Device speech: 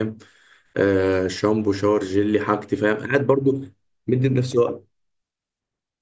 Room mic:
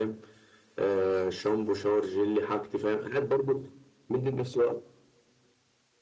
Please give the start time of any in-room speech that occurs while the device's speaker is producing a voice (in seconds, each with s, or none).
none